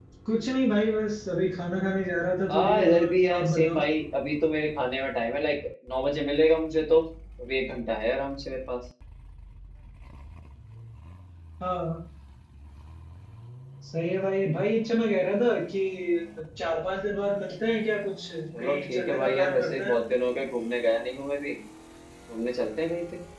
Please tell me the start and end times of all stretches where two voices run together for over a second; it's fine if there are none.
2.5-3.8, 18.6-20.0

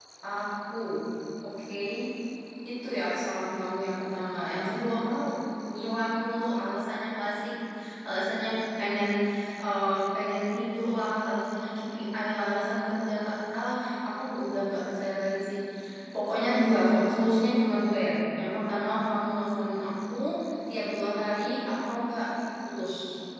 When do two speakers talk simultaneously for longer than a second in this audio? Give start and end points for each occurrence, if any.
none

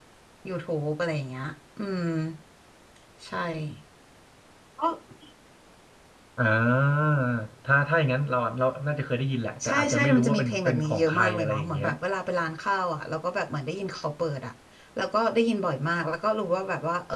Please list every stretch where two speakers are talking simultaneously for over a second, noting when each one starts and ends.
9.7-11.9

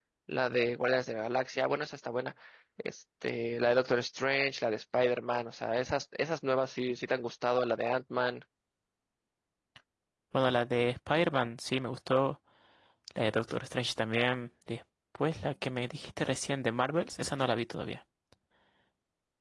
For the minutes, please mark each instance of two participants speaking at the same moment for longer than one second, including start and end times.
none

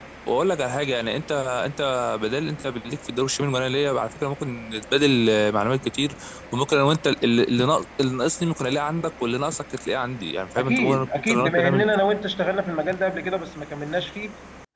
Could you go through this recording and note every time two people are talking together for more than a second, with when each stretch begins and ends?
10.6-11.8

